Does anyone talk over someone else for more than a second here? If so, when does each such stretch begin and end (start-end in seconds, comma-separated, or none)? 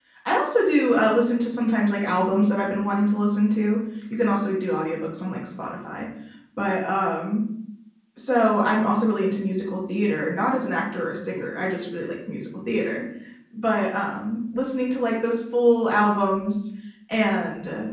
none